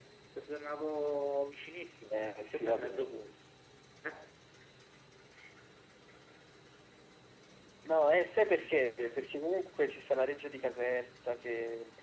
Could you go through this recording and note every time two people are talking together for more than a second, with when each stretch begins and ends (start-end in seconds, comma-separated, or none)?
2.1-3.3